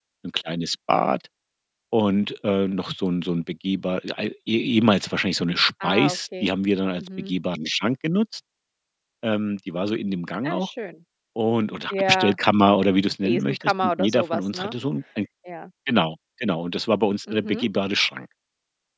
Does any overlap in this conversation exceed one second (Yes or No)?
Yes